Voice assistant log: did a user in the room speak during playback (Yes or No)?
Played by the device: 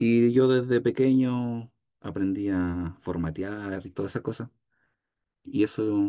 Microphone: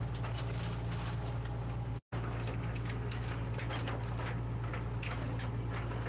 No